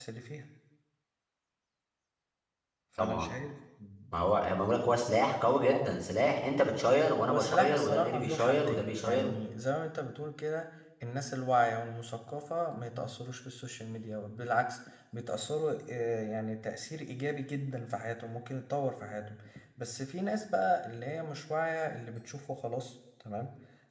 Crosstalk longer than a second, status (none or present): present